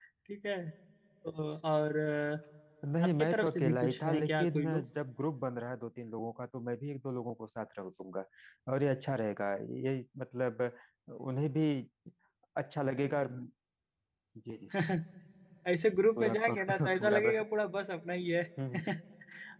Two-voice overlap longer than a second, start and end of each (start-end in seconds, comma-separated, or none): 3.0-4.8, 16.2-17.4